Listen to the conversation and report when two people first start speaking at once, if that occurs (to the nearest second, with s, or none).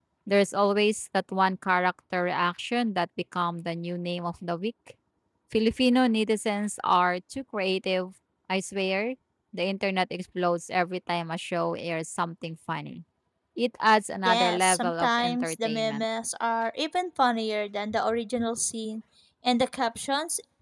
14 s